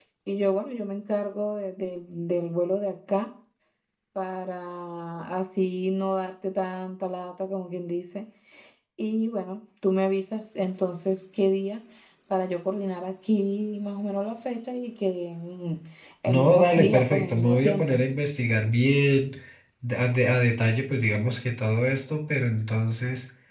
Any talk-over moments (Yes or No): Yes